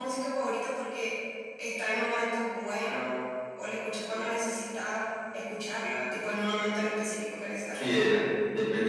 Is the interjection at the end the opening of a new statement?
Yes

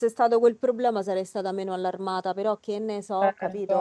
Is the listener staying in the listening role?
No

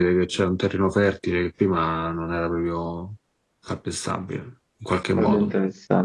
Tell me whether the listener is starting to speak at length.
Yes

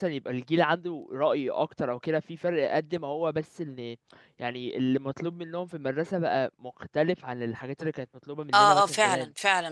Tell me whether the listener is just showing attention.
No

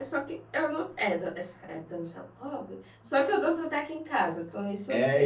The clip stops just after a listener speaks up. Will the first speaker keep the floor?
No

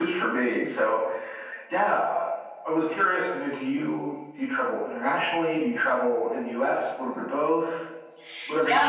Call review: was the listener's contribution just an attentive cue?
No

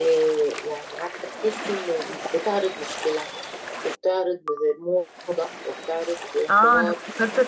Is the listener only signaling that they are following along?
No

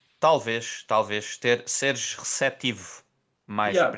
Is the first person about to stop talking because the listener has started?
Yes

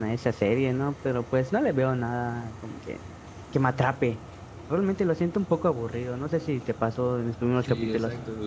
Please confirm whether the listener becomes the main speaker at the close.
Yes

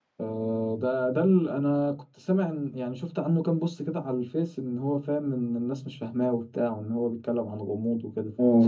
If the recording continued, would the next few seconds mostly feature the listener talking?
Yes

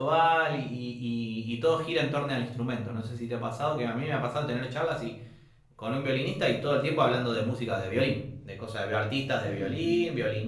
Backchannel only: Yes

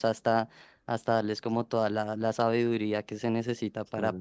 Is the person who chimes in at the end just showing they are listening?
Yes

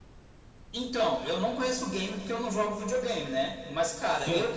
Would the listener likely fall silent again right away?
Yes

